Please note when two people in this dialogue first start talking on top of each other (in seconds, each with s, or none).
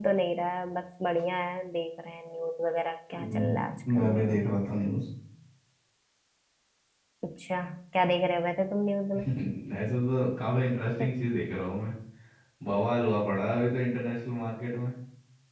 3.2 s